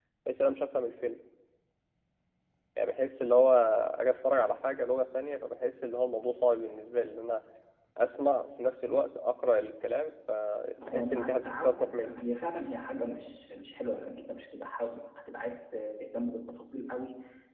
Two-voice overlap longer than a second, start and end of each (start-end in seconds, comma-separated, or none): 10.8-12.2